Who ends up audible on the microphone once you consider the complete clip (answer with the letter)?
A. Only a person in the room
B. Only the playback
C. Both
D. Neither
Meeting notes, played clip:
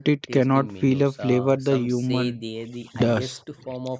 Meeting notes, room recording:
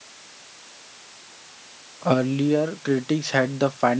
A